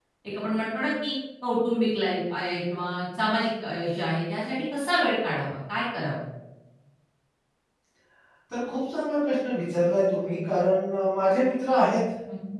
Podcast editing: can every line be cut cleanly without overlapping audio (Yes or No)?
Yes